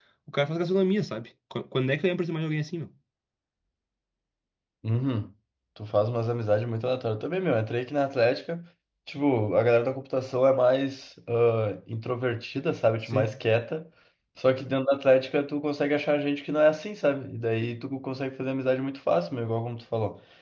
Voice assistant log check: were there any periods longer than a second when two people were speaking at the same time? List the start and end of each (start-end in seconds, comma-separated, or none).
none